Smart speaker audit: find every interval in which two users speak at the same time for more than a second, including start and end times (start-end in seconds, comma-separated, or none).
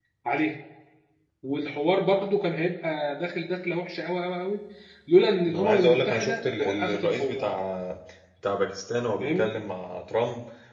5.5-7.5